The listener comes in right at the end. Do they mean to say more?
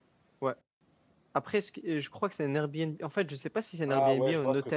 Yes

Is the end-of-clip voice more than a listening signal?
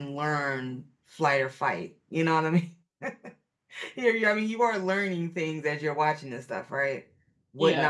No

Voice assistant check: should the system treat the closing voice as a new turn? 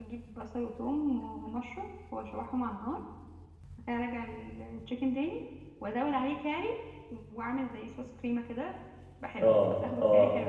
Yes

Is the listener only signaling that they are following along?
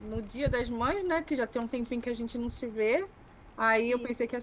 Yes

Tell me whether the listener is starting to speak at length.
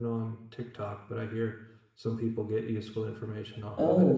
Yes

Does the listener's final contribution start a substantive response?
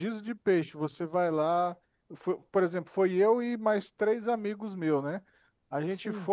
No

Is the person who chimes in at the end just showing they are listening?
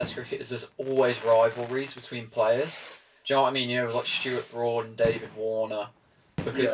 Yes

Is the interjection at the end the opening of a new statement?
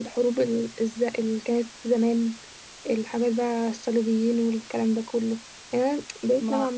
No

